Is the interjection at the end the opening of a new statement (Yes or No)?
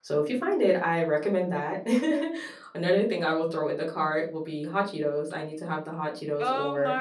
Yes